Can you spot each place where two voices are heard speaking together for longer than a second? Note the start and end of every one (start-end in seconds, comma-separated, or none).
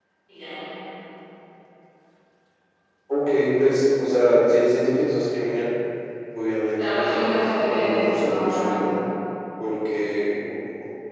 6.8-8.7